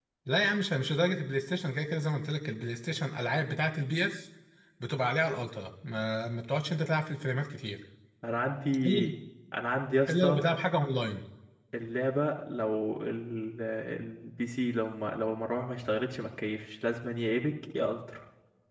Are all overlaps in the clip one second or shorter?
Yes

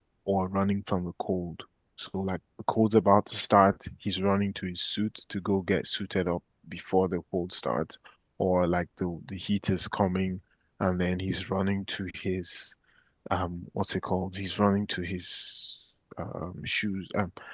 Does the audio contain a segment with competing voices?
No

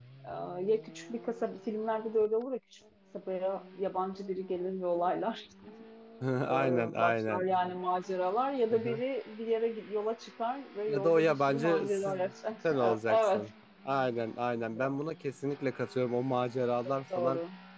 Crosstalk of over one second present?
Yes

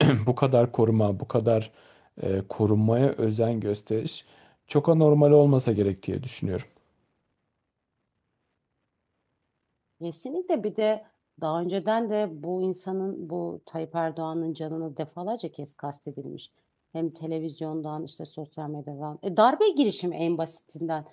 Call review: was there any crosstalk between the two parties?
No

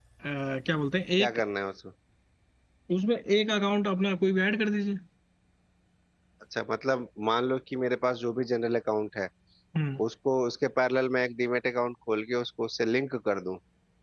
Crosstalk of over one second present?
No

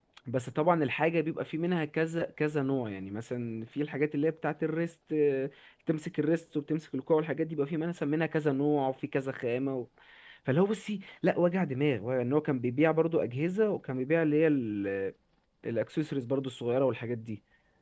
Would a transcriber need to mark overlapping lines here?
No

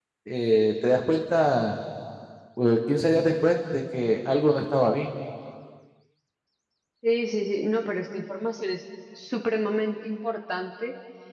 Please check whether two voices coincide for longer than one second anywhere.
No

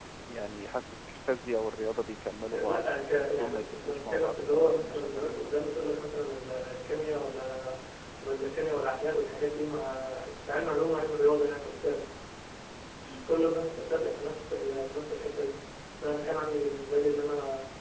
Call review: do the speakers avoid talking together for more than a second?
No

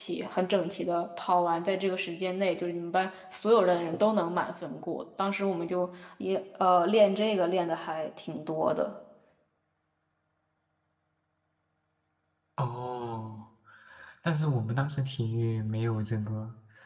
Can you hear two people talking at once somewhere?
No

